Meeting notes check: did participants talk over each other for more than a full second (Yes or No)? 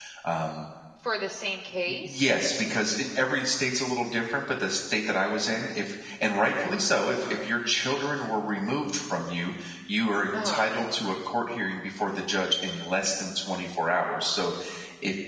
No